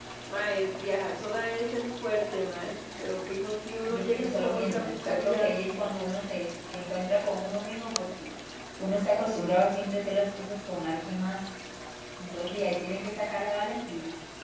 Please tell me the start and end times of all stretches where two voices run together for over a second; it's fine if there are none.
3.9-5.5

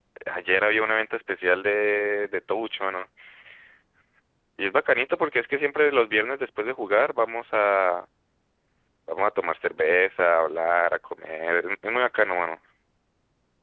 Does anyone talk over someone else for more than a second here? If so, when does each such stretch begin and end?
none

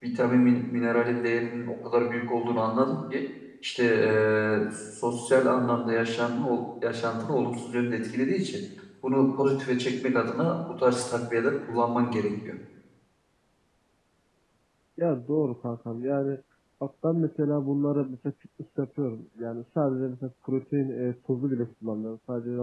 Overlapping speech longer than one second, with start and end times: none

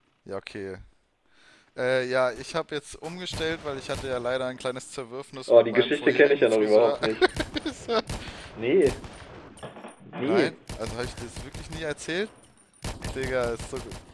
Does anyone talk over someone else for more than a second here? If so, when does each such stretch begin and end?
5.5-7.0

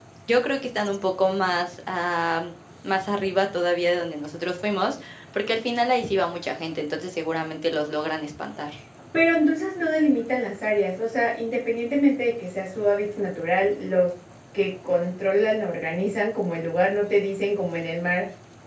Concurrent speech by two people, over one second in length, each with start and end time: none

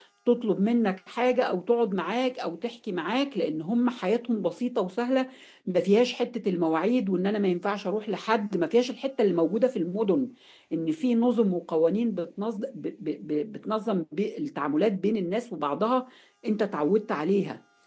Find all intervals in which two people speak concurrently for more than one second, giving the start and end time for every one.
none

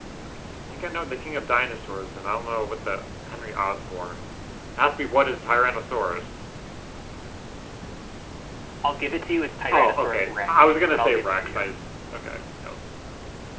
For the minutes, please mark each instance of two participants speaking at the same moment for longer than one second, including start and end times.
9.7-11.7

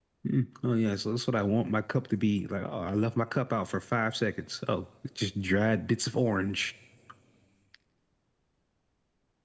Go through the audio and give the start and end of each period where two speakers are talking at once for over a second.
none

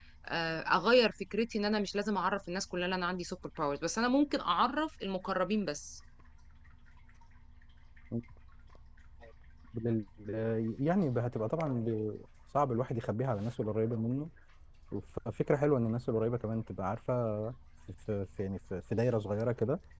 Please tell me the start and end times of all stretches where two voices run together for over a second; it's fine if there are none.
none

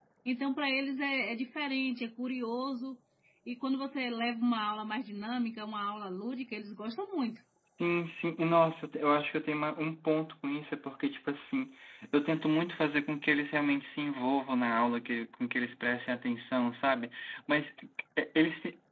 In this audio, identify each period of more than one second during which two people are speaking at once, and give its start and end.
none

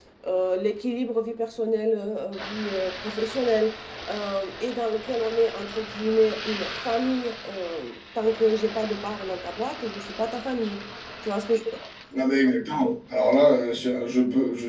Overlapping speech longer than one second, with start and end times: none

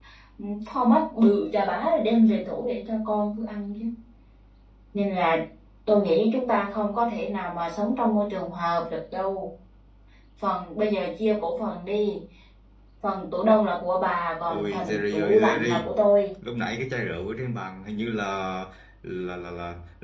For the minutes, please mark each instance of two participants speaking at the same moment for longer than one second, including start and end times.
14.4-15.9

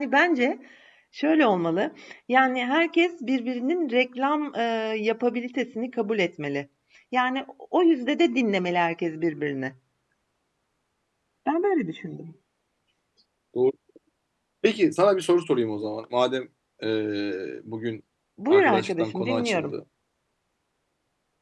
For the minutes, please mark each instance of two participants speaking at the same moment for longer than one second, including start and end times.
18.5-19.7

